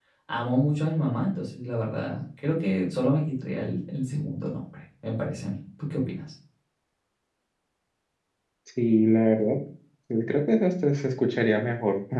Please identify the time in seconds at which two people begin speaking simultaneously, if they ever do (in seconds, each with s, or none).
none